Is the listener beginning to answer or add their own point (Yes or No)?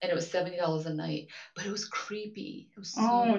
Yes